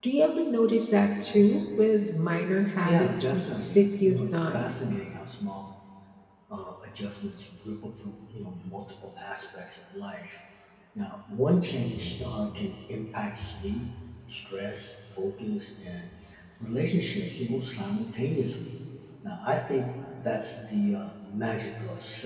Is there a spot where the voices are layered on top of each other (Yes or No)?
Yes